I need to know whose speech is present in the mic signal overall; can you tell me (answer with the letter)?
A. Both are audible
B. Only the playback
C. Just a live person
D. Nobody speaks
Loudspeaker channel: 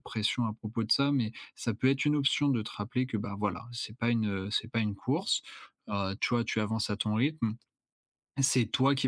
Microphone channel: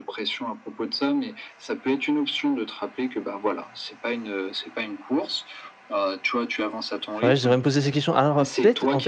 A